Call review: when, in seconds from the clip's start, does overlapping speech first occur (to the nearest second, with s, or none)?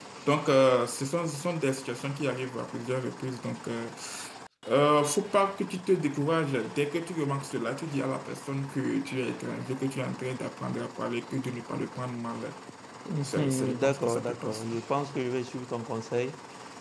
13 s